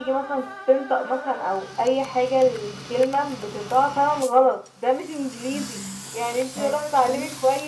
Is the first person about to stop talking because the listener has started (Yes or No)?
No